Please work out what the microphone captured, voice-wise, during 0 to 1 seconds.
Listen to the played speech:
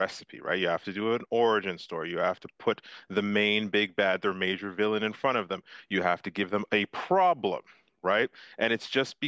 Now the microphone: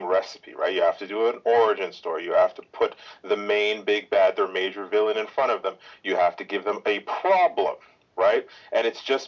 echo only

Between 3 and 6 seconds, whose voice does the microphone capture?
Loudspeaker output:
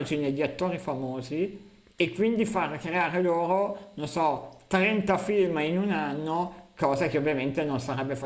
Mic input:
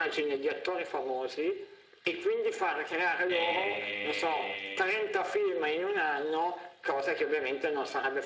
both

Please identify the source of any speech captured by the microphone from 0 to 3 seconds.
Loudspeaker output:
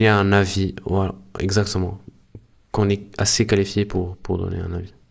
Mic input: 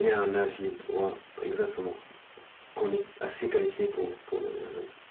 echo only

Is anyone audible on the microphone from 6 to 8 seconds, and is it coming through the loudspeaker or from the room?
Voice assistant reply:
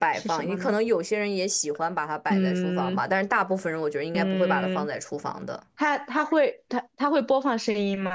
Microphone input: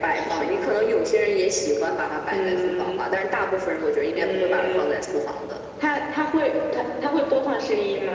echo only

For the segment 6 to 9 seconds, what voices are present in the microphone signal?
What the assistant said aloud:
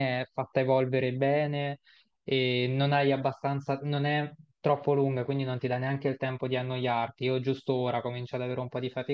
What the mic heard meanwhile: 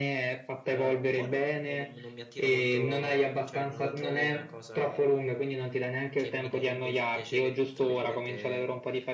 both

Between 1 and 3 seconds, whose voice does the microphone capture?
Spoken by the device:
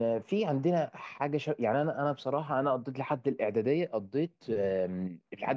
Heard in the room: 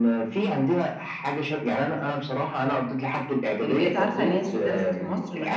echo only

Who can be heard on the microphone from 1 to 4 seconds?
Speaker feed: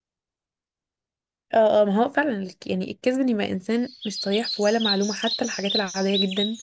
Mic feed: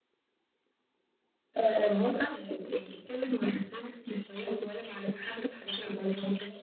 echo only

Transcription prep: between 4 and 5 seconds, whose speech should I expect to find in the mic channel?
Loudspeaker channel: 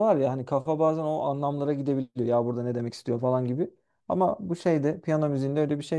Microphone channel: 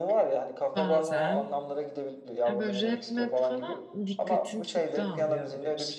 both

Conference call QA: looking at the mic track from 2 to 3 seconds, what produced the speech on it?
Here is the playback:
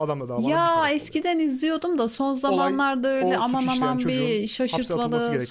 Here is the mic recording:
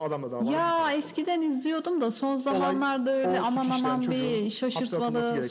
echo only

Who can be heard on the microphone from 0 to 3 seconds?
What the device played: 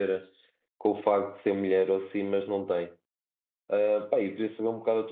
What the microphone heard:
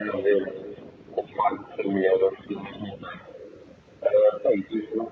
echo only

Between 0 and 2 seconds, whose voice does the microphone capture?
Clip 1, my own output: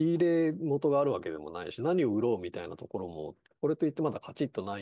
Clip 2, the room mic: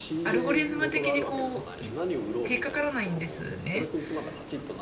both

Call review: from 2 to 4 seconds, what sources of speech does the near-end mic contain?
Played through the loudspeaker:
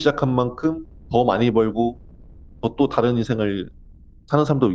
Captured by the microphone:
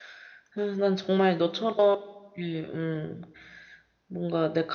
user only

